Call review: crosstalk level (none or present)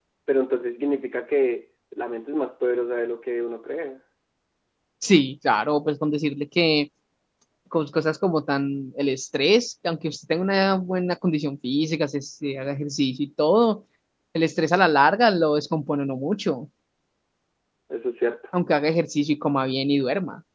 none